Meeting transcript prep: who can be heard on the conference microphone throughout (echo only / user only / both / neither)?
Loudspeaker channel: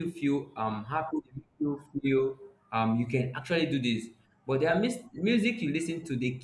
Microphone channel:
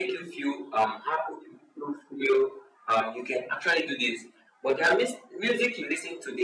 echo only